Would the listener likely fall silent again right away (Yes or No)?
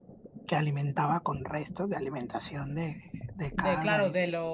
No